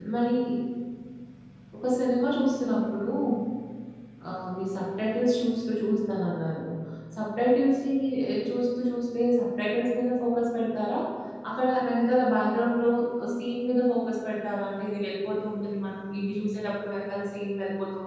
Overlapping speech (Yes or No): No